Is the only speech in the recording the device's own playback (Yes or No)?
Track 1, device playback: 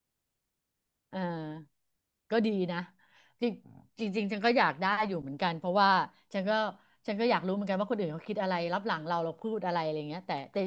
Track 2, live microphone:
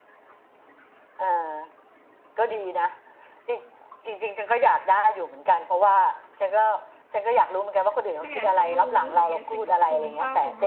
No